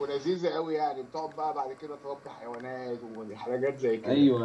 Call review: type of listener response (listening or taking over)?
taking over